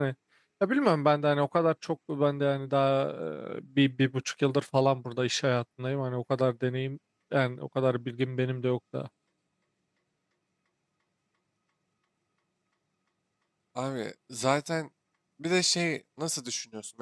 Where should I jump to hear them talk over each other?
none

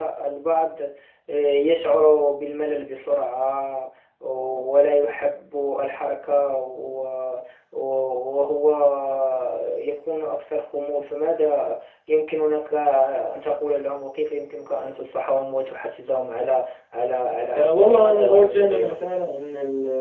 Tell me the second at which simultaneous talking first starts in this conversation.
17.4 s

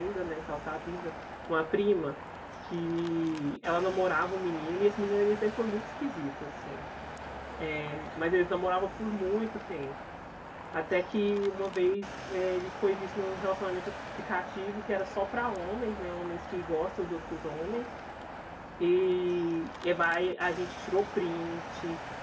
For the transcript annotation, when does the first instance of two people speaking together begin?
none

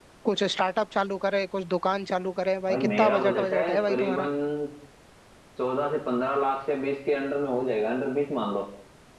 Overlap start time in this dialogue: 2.7 s

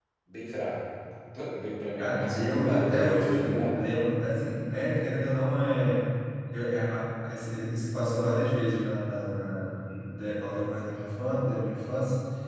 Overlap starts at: 2.0 s

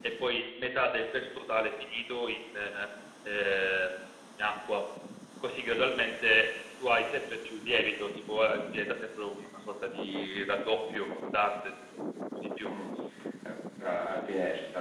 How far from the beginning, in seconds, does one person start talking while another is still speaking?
none

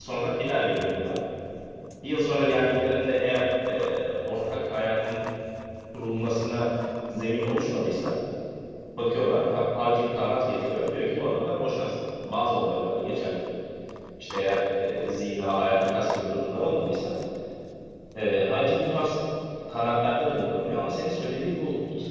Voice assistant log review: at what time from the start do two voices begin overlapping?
none

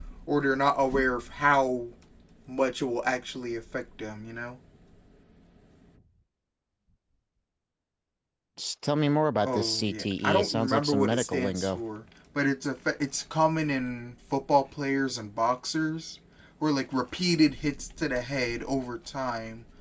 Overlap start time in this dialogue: 9.4 s

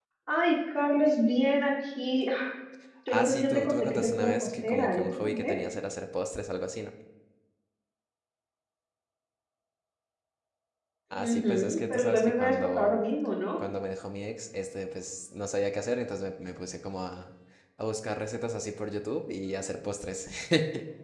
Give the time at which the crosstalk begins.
3.1 s

